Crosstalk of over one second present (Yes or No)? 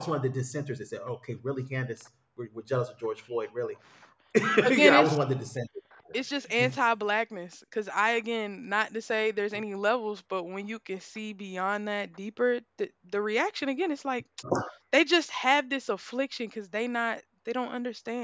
No